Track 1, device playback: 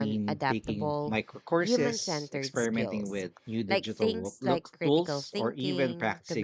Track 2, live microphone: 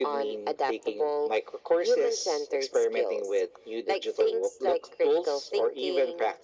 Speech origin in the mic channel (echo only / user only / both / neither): echo only